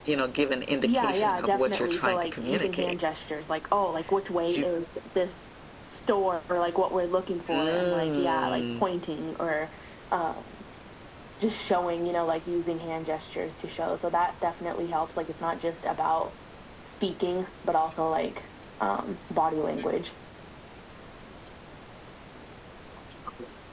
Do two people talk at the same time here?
Yes, from 0.8 s

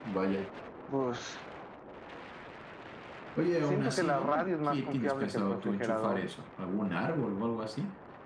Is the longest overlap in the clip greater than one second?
Yes, from 3.7 s

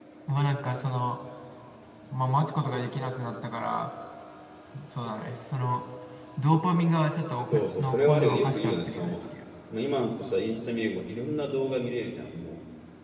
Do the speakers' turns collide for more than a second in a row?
Yes, from 7.5 s

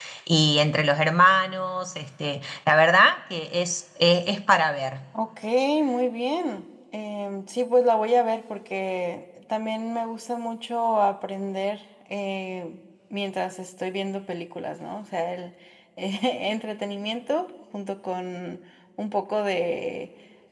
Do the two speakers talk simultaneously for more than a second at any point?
No

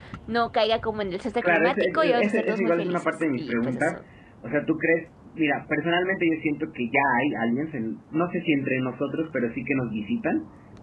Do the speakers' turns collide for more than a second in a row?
Yes, from 1.4 s

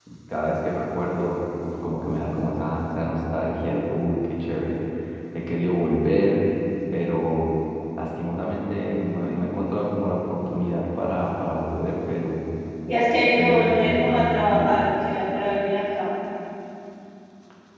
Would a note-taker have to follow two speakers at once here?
Yes, from 13.3 s

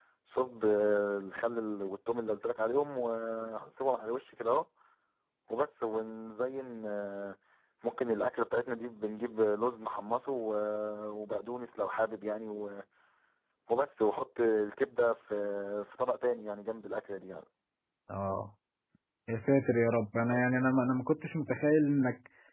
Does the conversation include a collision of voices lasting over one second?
No

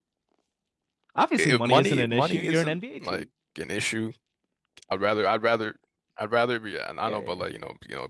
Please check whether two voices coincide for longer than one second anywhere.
Yes, from 1.4 s

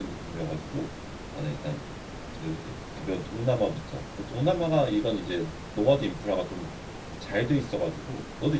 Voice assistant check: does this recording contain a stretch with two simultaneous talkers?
No

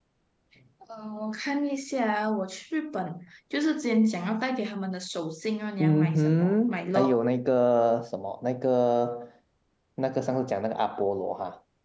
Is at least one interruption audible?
Yes, from 5.8 s

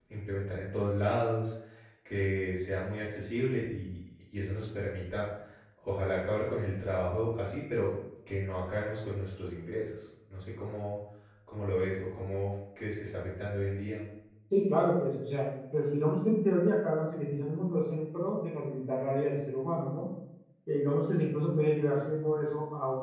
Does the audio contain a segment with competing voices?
No

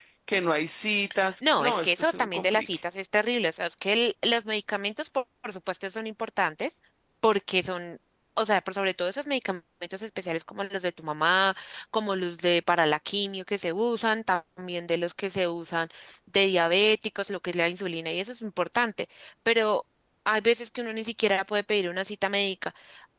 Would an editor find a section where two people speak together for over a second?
Yes, from 1.4 s

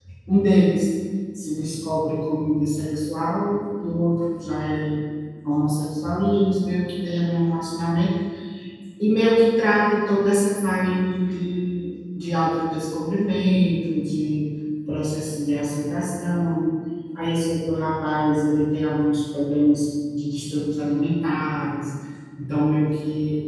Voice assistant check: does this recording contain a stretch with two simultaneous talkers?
No

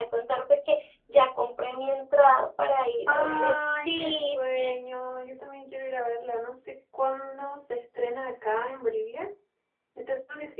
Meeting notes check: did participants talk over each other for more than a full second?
Yes, from 3.1 s

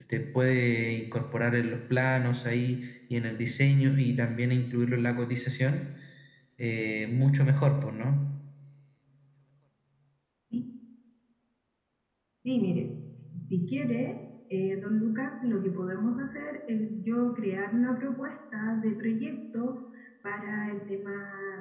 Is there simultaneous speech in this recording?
No

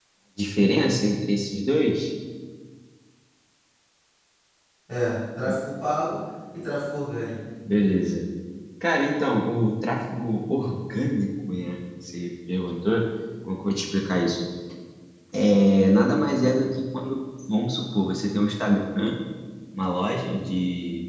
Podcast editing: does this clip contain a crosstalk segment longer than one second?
No

